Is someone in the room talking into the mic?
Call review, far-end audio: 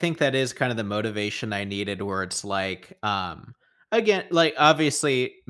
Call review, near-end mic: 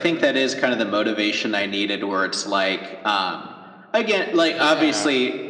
Yes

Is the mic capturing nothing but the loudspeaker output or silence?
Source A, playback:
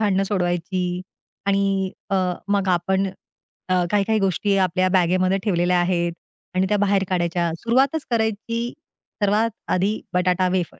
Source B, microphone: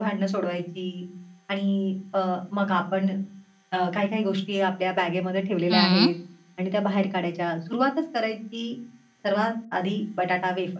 No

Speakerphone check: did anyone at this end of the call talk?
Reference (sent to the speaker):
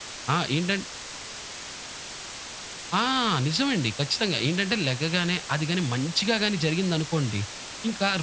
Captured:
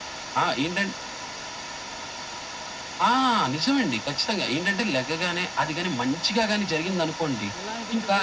Yes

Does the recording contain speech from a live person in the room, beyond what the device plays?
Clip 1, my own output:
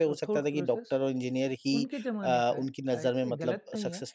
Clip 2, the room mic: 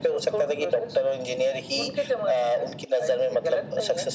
No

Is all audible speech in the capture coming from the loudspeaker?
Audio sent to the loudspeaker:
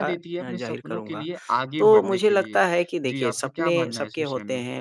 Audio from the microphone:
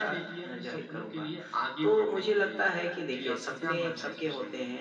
Yes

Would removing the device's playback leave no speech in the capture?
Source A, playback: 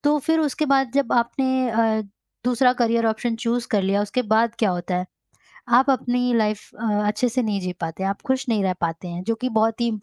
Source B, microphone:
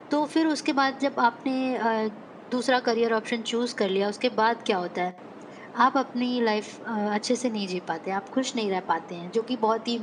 Yes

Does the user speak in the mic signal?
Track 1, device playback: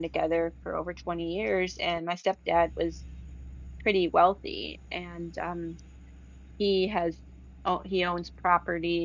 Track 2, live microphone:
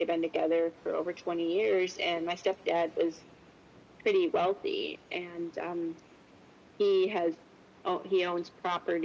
No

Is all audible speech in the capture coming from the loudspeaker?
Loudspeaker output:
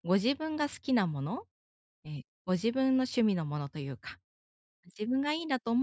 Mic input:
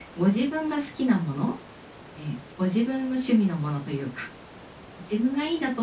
Yes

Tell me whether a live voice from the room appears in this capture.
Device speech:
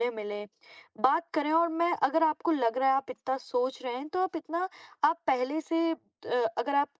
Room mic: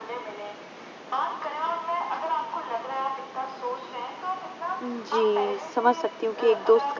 Yes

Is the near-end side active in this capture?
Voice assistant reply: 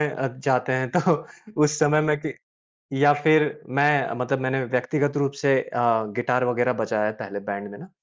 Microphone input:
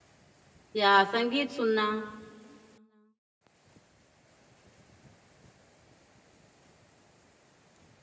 Yes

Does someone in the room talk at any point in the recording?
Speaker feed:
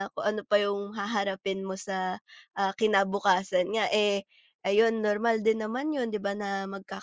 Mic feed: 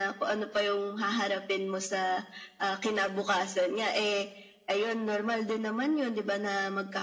No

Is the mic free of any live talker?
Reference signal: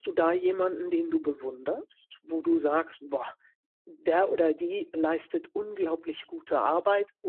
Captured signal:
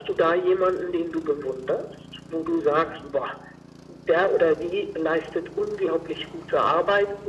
Yes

